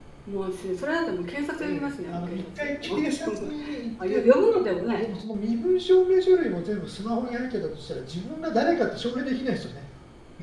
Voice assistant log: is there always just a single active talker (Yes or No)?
No